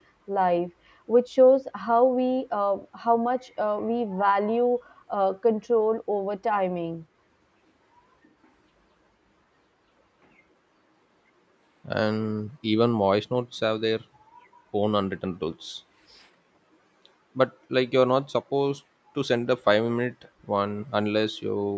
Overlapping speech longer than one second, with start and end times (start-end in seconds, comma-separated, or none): none